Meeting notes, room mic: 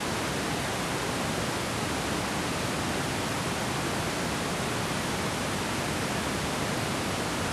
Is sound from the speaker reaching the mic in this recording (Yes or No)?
No